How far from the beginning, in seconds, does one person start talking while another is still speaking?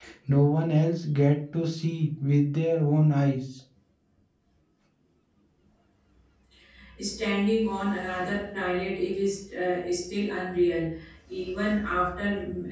none

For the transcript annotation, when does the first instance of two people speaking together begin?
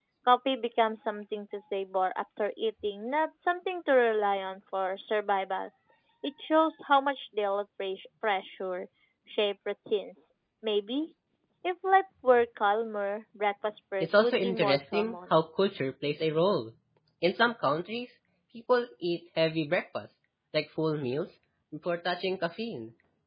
14.0 s

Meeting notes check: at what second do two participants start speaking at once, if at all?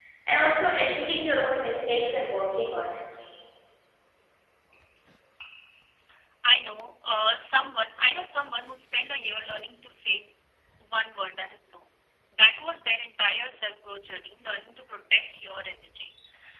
none

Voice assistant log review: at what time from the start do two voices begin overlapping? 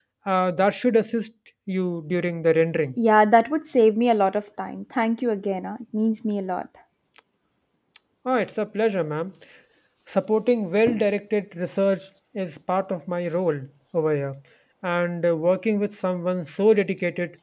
none

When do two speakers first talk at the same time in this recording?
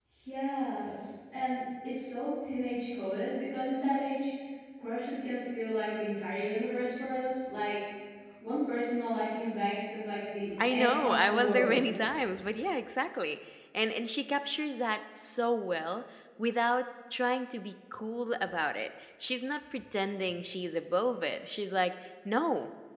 10.6 s

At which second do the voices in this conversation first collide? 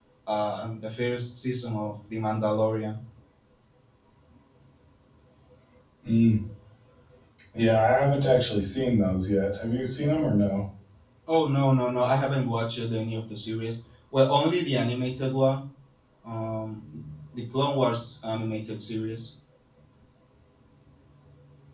none

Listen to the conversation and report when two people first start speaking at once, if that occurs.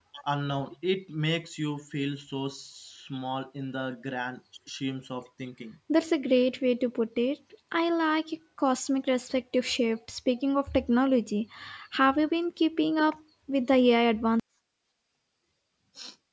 none

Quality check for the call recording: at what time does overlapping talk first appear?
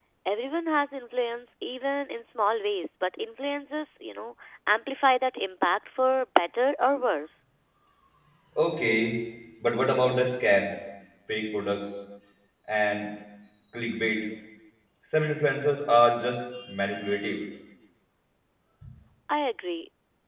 none

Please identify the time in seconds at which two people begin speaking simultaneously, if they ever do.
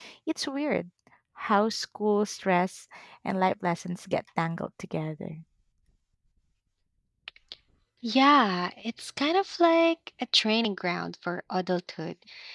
none

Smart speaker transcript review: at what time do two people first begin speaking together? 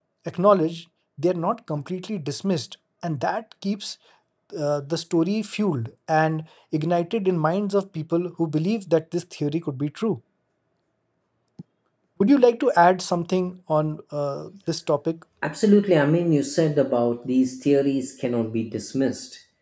none

